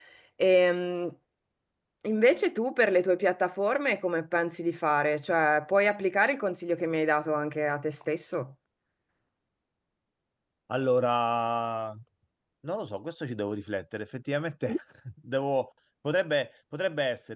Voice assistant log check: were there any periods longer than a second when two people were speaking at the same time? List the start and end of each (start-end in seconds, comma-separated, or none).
none